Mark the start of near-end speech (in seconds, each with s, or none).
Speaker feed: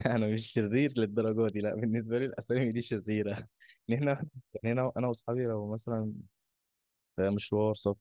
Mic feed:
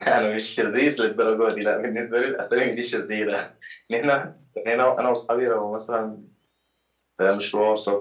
none